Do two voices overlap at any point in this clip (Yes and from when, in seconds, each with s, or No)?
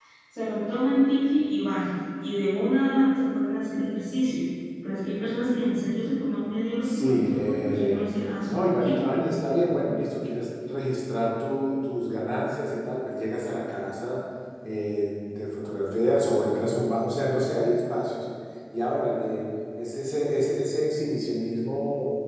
Yes, from 6.8 s